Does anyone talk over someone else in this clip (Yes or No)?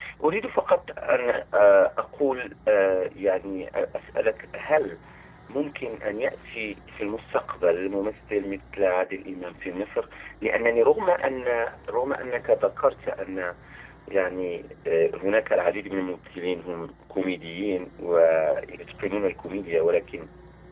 No